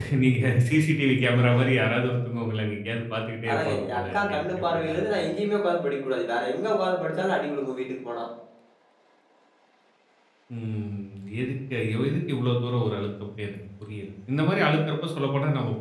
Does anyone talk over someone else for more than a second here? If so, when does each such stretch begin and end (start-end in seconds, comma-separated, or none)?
3.5-5.1